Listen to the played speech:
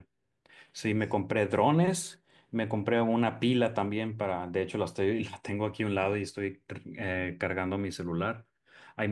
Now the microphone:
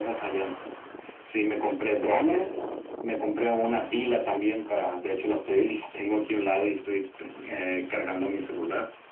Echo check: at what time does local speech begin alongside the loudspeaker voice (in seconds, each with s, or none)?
none